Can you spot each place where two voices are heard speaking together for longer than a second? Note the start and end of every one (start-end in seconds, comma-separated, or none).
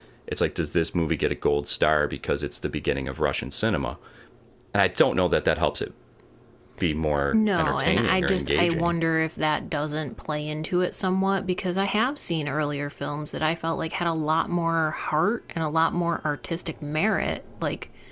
7.3-8.9